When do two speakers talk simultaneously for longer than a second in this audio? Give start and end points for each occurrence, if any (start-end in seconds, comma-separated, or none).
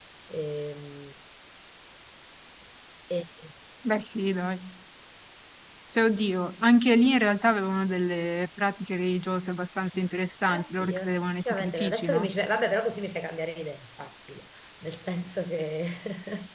10.5-12.3